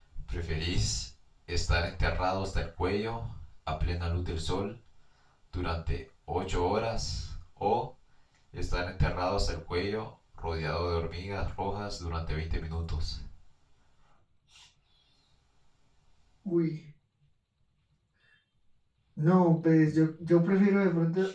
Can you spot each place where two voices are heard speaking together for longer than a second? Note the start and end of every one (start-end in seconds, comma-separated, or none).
none